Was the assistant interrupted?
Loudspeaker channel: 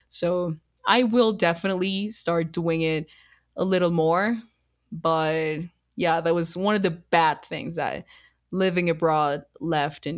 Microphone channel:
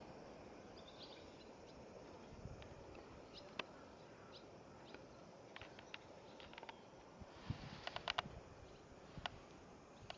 No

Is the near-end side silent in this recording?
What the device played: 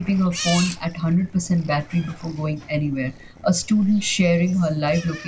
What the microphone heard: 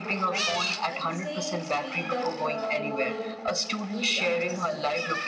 No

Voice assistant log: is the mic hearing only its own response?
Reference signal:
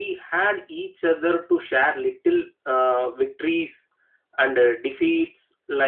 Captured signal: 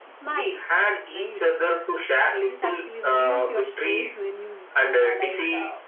No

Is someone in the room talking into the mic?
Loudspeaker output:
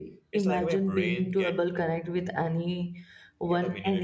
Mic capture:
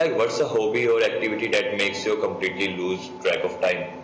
Yes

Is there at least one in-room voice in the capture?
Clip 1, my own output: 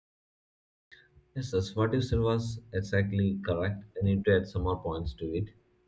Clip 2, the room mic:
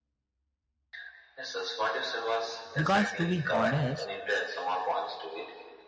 Yes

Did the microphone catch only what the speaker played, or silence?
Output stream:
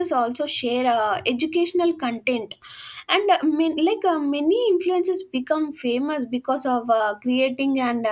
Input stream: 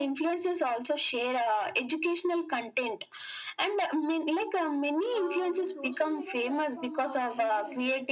No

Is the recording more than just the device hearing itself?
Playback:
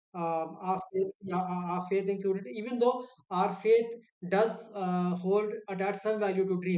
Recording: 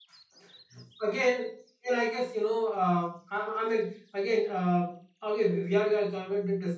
Yes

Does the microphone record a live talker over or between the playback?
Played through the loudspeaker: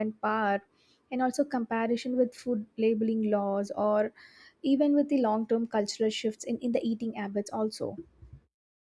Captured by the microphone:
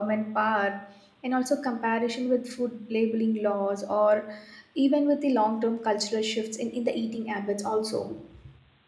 No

